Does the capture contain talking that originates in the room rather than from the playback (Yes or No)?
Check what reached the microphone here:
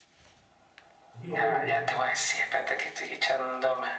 Yes